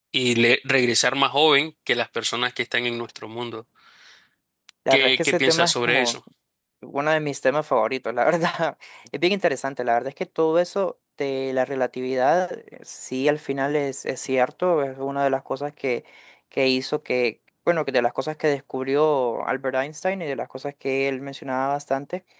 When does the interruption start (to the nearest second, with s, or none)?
5 s